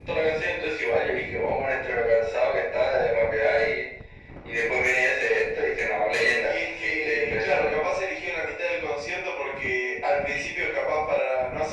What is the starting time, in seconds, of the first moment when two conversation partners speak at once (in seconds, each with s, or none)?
6.4 s